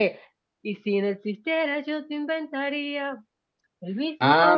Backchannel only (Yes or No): No